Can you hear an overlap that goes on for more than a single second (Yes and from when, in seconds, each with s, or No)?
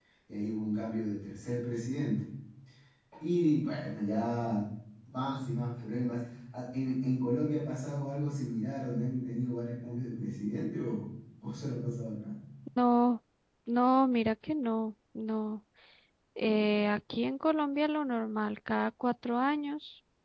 No